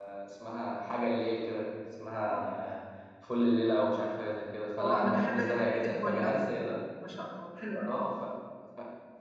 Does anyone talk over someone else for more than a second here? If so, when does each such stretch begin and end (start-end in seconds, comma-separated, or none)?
4.8-6.4